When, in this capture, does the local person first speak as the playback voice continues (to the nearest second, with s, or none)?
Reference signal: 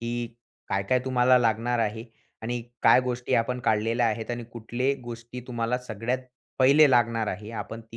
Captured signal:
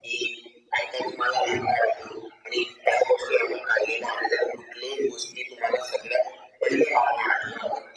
none